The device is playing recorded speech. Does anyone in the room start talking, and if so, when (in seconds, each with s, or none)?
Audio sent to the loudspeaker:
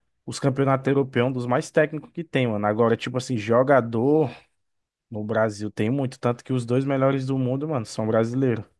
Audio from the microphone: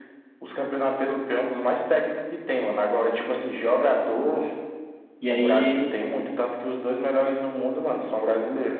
5.2 s